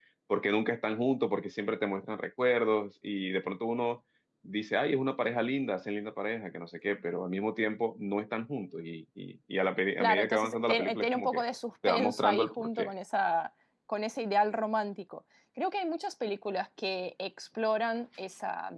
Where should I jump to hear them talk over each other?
10.0 s

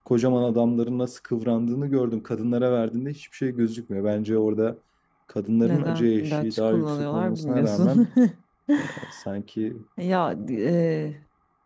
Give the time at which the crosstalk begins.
5.6 s

